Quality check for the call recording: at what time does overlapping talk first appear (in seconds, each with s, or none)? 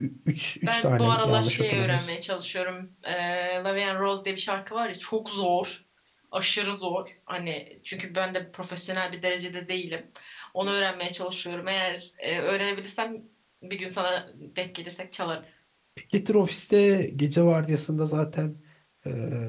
0.7 s